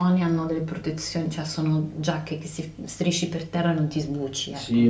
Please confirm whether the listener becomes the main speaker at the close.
Yes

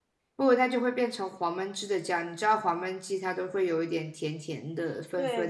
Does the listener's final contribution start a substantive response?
Yes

